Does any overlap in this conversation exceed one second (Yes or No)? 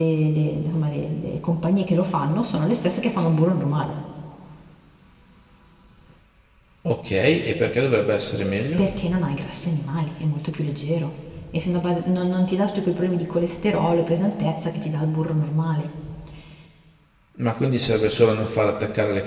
No